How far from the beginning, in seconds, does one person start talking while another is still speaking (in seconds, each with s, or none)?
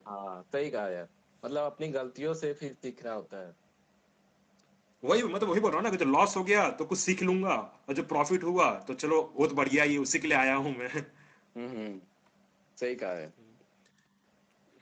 none